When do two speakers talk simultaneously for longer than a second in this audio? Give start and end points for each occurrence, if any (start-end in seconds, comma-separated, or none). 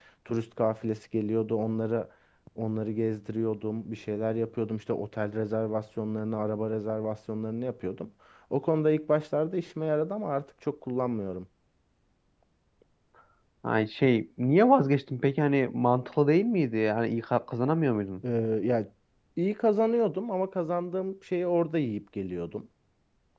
none